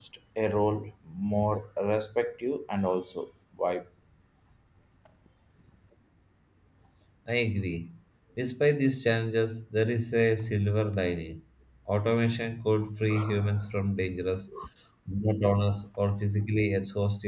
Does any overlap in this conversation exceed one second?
No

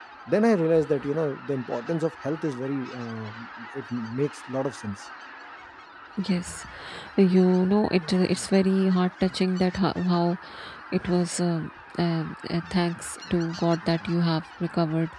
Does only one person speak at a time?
Yes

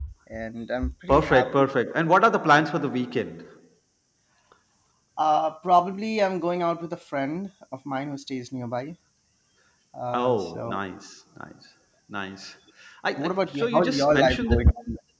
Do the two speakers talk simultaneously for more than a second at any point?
Yes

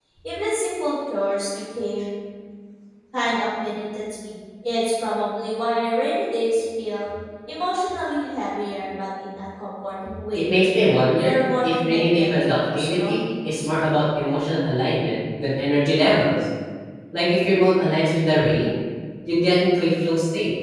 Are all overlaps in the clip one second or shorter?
No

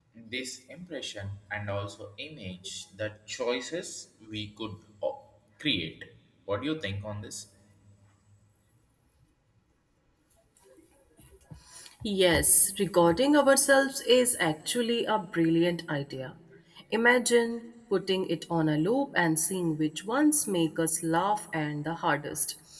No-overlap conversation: Yes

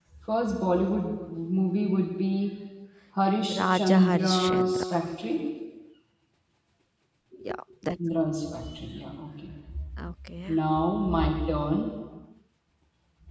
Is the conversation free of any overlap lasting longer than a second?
No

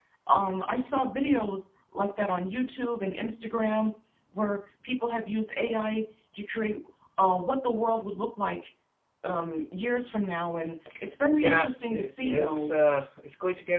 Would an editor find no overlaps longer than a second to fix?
No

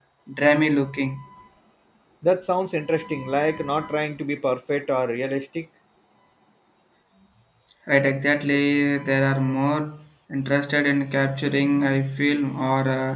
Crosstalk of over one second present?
No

